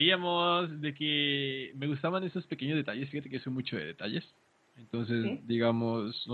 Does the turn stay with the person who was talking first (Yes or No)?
Yes